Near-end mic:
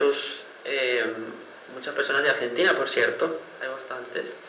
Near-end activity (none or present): none